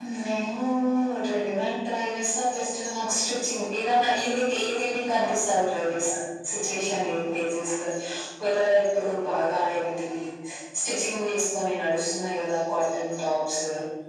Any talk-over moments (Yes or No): No